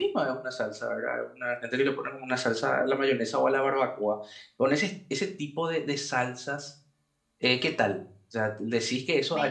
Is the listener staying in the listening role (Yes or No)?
Yes